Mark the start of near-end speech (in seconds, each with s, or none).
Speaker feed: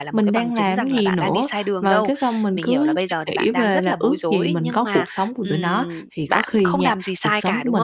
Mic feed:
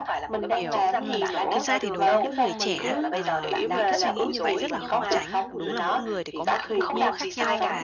0.4 s